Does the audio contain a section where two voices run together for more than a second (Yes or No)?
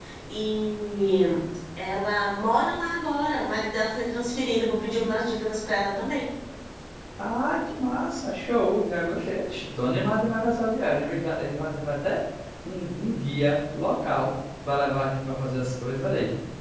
No